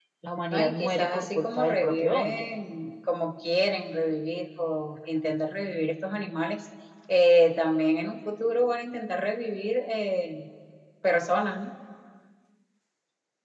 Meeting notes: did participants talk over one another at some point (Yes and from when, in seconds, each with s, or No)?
Yes, from 0.5 s